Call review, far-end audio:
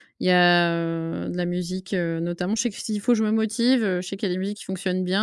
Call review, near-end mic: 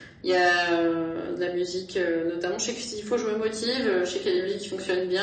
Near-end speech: none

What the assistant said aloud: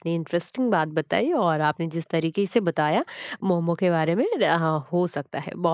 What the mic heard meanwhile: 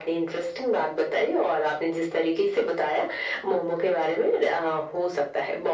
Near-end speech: none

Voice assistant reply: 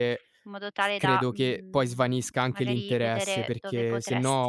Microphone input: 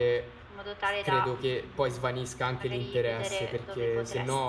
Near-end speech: none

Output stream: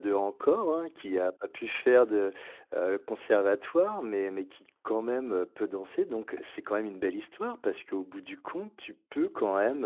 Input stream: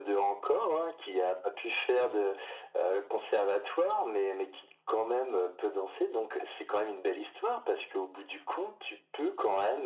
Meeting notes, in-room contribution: none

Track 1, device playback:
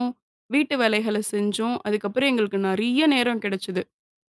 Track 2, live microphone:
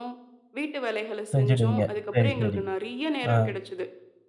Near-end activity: present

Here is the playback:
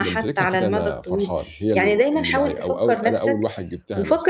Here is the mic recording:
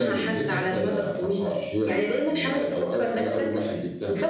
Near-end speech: none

